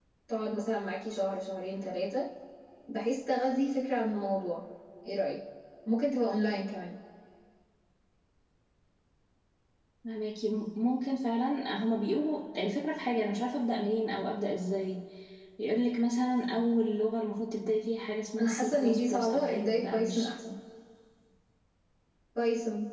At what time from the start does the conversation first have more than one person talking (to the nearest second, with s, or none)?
18 s